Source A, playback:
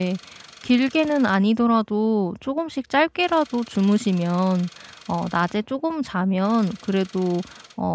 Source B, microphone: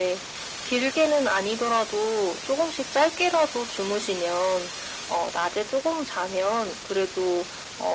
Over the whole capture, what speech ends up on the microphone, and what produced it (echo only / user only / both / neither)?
echo only